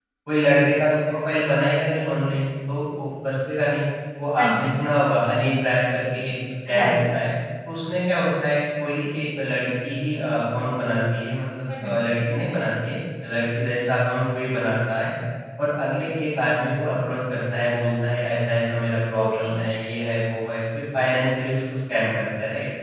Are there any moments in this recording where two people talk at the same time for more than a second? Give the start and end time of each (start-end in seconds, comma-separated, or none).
none